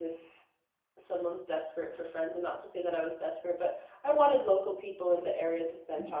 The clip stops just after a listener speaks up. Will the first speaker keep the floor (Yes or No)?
Yes